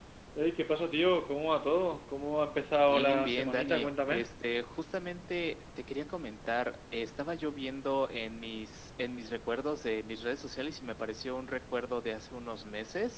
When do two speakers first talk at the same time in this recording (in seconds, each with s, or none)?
2.8 s